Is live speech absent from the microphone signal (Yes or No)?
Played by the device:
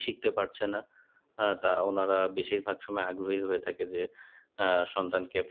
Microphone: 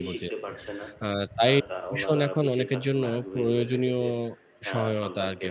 No